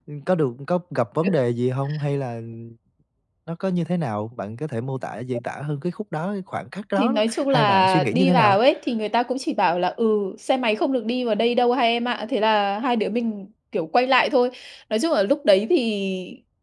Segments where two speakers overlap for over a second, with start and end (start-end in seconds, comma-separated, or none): 7.0-8.6